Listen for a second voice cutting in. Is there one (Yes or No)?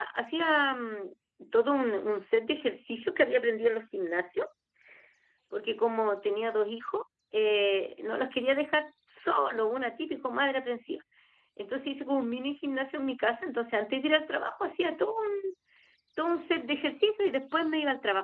No